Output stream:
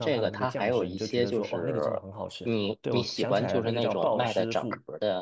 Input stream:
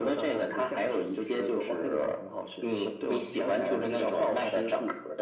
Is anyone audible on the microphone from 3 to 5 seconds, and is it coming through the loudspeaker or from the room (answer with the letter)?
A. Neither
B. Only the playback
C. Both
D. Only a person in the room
B